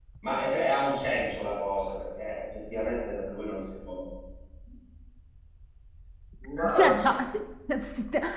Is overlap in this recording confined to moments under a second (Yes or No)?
Yes